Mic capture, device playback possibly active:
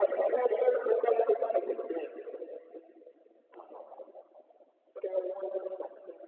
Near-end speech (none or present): none